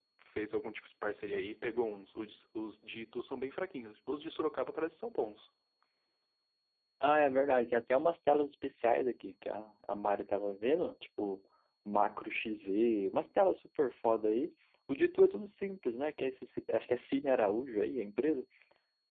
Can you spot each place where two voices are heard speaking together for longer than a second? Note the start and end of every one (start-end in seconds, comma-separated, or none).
none